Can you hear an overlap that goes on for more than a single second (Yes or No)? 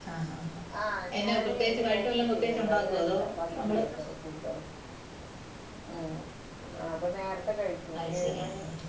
Yes